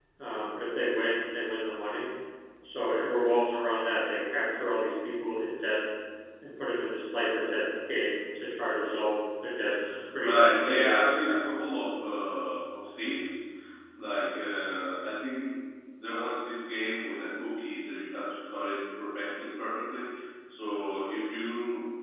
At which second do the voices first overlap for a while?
10.2 s

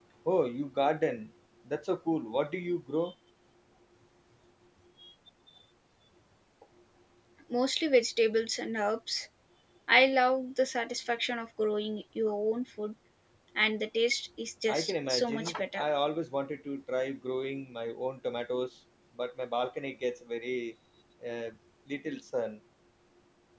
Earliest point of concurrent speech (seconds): 14.7 s

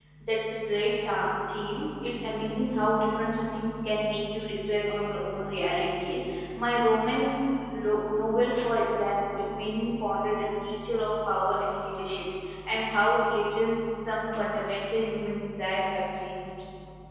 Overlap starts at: none

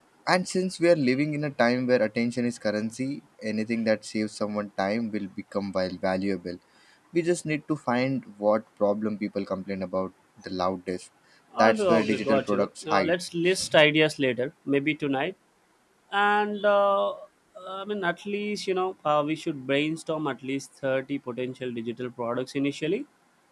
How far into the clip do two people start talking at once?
11.6 s

